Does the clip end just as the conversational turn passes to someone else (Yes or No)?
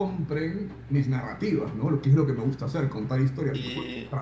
Yes